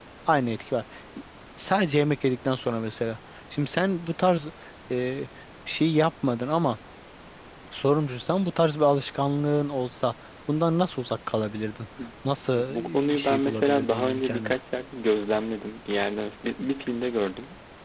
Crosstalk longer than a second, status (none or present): present